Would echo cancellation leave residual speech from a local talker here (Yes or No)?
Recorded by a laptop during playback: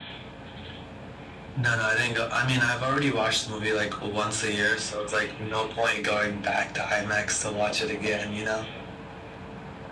No